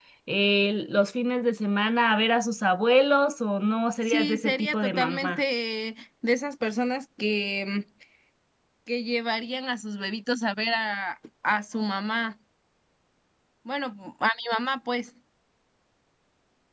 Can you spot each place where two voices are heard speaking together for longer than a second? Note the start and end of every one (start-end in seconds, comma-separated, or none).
4.0-5.4